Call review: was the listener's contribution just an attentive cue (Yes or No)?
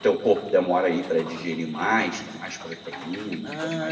No